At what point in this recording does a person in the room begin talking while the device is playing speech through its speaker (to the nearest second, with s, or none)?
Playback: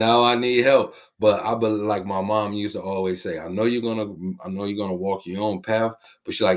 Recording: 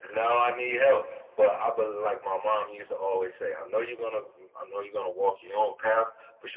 none